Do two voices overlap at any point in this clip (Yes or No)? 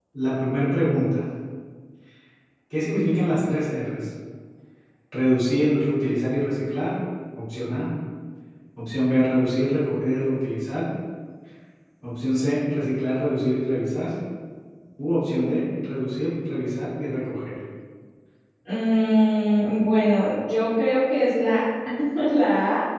No